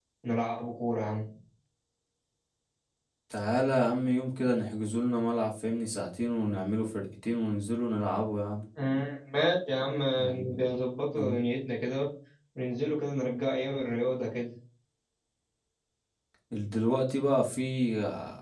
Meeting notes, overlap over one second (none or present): none